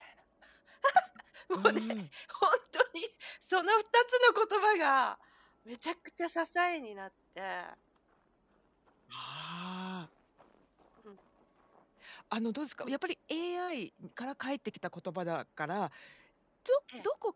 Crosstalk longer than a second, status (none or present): none